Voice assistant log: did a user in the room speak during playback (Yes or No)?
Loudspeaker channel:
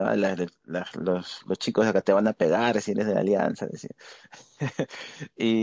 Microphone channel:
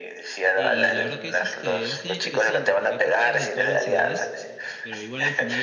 Yes